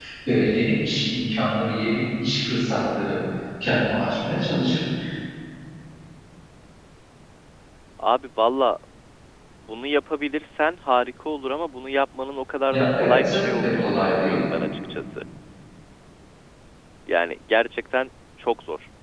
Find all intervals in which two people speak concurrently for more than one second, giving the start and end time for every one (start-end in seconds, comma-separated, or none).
12.7-14.4